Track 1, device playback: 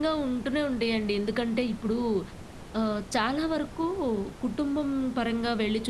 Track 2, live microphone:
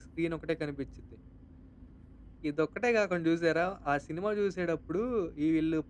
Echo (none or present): none